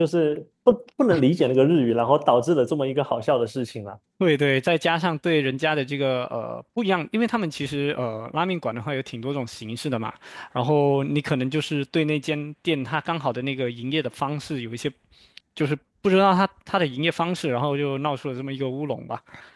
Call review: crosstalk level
none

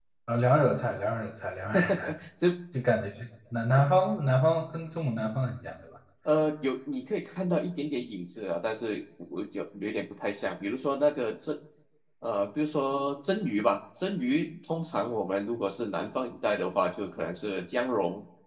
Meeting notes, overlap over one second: none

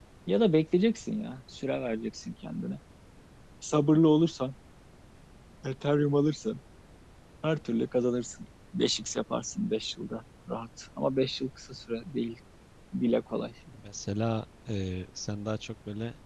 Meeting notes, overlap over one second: none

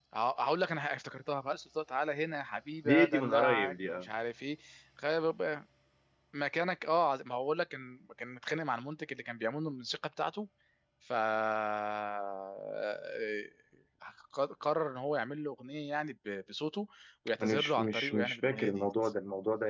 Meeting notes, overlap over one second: present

